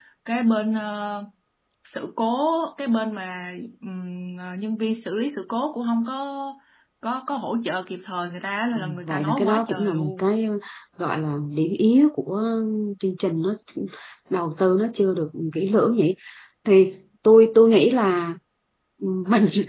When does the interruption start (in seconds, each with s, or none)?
8.8 s